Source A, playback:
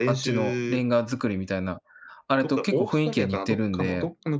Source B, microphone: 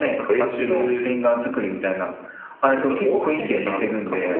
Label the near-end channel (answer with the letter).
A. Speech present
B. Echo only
A